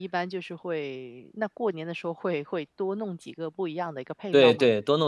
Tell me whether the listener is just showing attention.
No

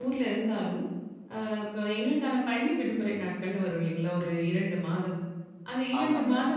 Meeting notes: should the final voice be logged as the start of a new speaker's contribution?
No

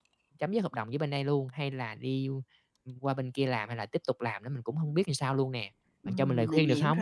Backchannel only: No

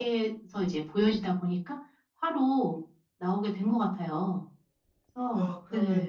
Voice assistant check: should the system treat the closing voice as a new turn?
Yes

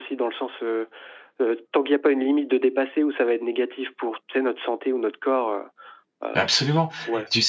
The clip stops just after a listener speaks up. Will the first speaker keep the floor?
No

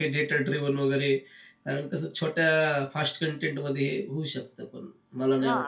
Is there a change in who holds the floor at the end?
Yes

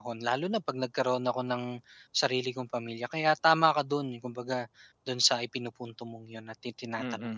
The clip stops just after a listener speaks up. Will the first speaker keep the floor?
No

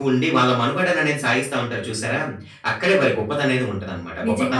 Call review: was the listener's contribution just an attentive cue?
No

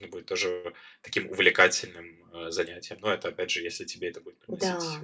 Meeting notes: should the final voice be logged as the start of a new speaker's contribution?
Yes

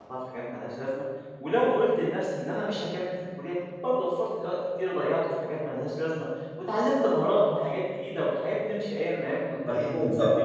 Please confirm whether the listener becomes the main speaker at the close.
Yes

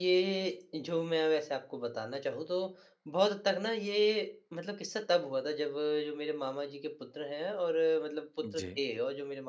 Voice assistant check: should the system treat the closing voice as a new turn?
No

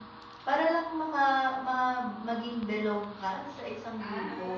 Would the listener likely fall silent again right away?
No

